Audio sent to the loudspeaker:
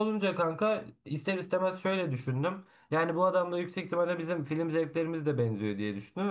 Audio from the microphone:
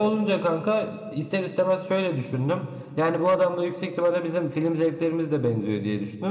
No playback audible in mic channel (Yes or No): No